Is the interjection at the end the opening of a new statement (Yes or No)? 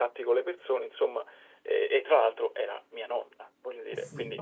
Yes